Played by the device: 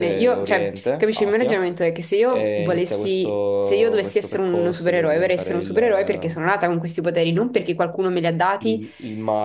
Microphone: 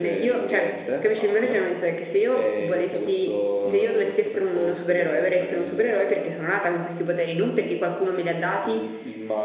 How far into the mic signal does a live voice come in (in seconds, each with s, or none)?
3.6 s